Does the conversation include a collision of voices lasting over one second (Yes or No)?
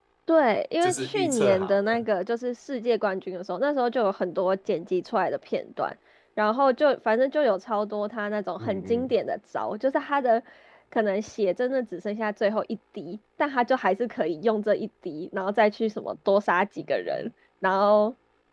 Yes